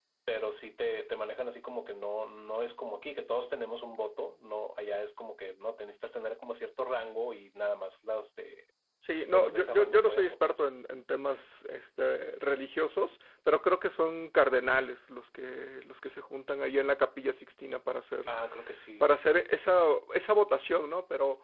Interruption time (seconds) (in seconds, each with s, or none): 9.3 s